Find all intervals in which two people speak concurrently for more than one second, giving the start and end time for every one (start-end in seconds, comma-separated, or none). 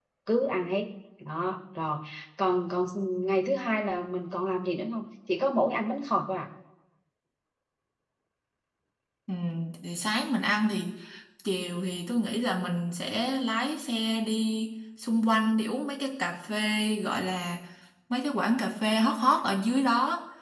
none